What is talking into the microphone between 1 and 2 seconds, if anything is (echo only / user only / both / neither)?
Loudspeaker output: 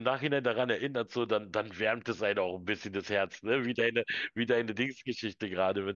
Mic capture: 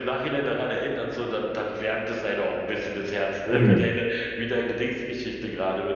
echo only